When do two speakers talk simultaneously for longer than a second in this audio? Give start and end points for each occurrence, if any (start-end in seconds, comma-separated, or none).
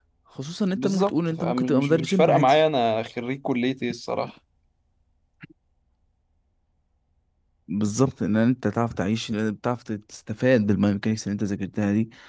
0.8-2.5